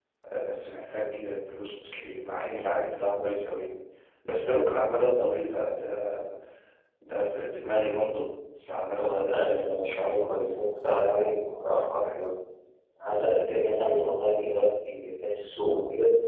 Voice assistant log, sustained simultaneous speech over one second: present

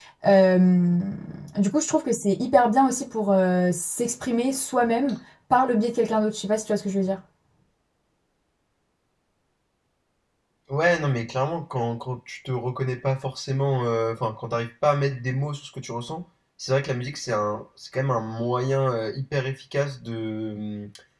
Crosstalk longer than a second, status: none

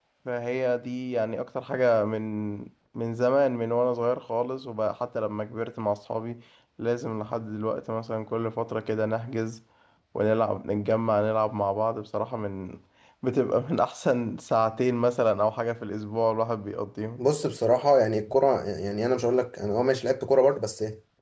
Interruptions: none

